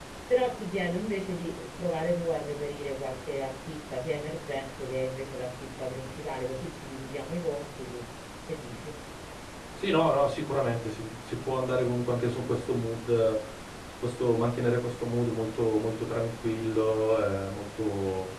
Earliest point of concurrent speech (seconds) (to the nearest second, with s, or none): none